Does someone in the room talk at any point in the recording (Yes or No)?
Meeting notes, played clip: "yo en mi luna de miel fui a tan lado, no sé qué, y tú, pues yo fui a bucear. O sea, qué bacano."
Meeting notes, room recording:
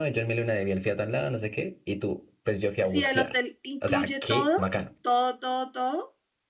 Yes